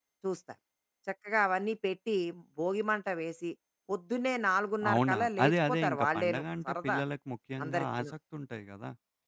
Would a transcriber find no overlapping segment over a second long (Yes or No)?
No